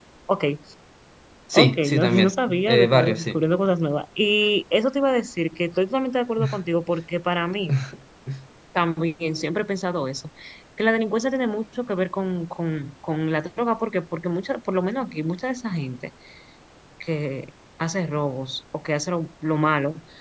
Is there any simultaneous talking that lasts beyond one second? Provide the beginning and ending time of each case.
1.5-3.4

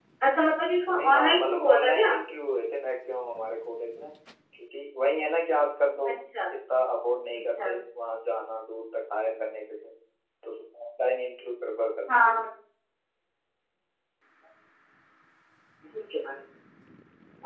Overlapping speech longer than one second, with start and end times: 0.9-2.1

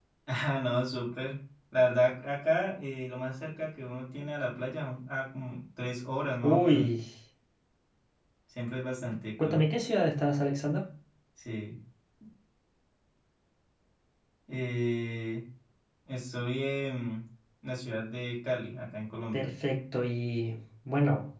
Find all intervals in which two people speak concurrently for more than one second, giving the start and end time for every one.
none

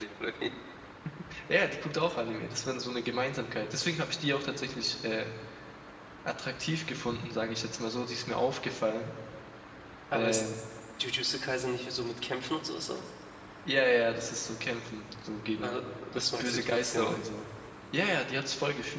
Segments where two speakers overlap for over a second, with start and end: 15.6-17.3

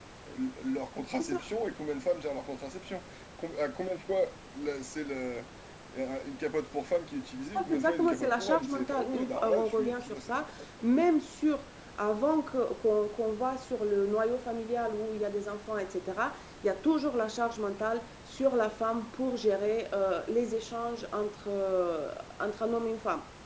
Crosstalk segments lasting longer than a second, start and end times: 7.5-10.4

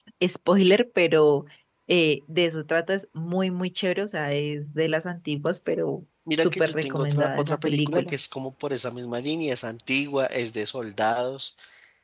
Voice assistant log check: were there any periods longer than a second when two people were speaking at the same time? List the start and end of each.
6.4-8.2

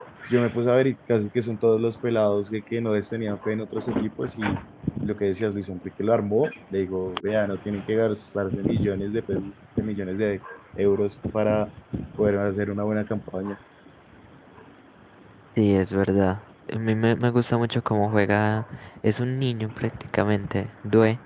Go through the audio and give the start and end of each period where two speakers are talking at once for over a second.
none

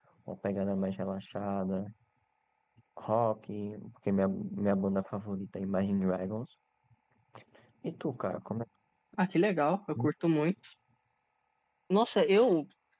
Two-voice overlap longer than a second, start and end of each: none

